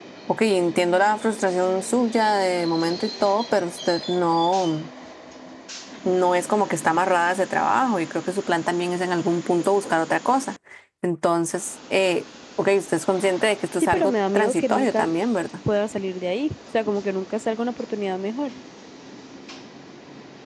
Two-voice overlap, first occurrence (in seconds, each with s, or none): 13.8 s